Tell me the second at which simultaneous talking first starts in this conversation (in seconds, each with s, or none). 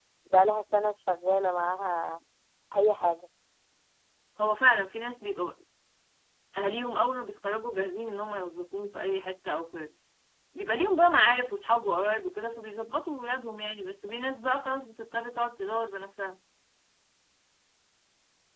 none